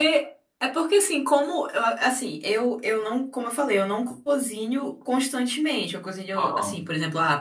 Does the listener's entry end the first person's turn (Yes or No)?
No